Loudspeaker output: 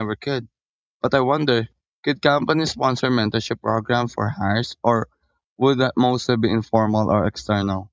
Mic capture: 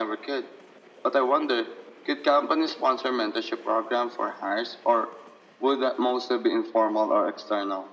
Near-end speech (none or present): none